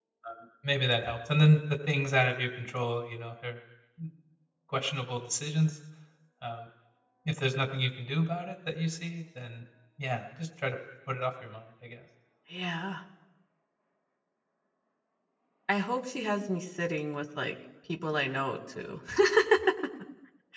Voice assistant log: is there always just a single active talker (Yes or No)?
Yes